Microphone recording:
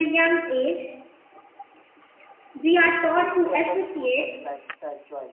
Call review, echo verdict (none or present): present